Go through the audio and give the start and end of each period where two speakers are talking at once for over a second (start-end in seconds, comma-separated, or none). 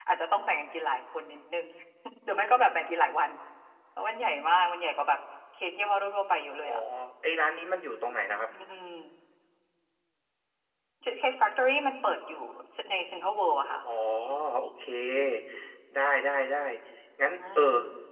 none